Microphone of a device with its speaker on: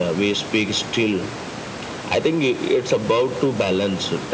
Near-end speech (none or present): none